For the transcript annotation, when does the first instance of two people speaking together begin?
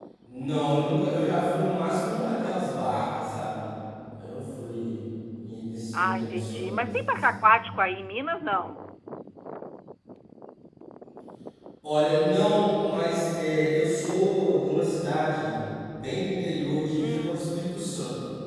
5.9 s

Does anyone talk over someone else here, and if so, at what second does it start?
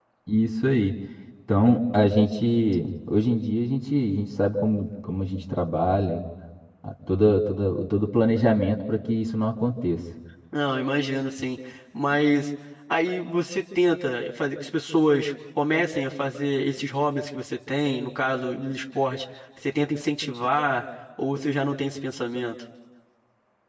none

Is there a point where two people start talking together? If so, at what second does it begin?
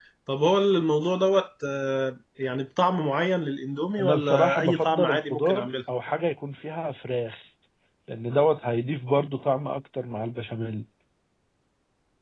4.0 s

